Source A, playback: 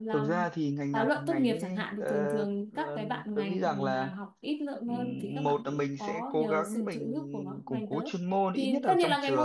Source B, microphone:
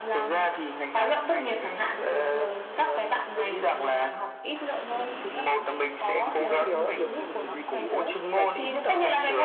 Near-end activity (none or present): present